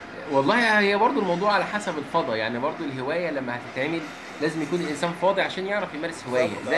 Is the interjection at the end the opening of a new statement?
Yes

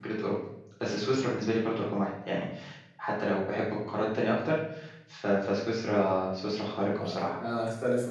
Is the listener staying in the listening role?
No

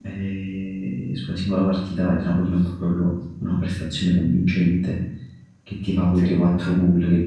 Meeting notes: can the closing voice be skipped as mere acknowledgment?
Yes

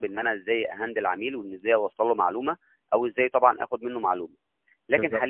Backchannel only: Yes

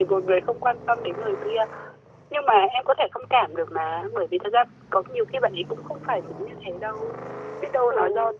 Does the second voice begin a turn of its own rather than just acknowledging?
No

